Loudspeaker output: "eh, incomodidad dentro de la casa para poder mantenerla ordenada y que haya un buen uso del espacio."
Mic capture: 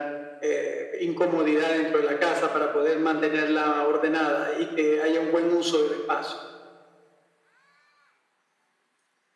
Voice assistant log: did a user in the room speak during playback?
No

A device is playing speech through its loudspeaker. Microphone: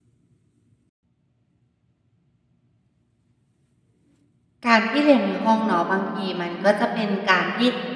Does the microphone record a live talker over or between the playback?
Yes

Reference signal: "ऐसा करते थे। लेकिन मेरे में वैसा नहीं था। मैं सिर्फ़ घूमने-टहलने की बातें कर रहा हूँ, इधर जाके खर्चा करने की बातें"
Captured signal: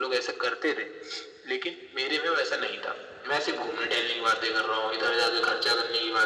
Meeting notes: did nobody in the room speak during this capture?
Yes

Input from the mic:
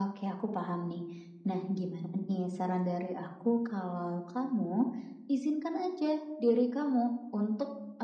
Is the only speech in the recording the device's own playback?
Yes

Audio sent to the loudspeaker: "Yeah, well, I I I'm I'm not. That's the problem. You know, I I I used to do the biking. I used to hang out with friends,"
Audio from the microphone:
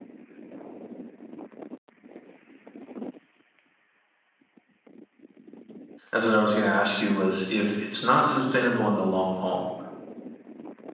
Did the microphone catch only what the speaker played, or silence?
No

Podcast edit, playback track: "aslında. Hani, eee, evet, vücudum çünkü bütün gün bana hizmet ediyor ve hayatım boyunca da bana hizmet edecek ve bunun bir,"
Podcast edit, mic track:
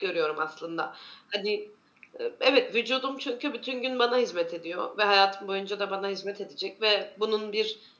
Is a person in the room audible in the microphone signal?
No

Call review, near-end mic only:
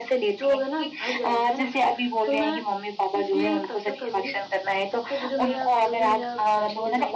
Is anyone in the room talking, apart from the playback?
No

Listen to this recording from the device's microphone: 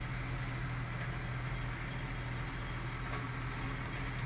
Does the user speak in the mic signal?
No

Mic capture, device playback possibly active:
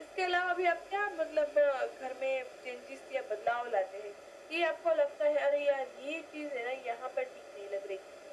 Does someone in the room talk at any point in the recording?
No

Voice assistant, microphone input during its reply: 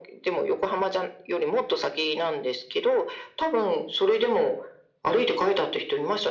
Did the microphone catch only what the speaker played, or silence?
Yes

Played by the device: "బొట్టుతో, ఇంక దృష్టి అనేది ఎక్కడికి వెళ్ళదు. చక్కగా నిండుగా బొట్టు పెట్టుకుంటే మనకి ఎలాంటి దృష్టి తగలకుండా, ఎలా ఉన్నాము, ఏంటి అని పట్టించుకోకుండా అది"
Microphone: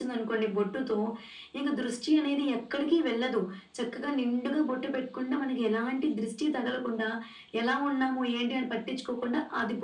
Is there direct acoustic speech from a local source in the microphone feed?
No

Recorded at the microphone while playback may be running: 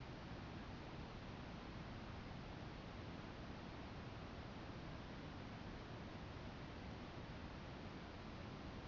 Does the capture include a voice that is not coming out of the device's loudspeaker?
No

